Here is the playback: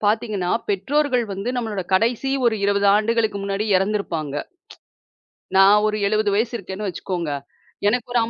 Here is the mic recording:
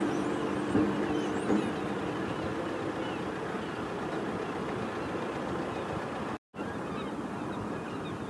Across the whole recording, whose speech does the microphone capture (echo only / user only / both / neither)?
neither